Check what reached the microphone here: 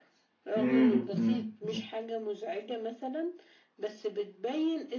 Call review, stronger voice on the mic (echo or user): user